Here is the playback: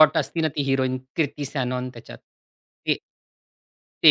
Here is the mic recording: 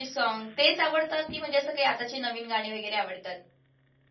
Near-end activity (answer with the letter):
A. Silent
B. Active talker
B